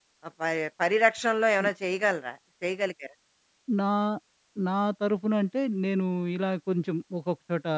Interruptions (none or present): none